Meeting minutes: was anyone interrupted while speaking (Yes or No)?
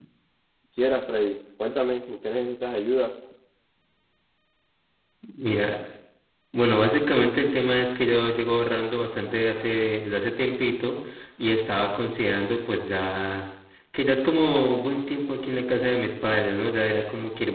No